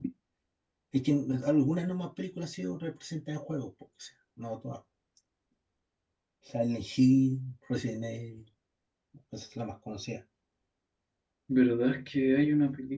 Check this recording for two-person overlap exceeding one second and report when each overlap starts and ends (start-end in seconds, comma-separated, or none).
none